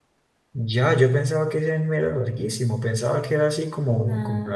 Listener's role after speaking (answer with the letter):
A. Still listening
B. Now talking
A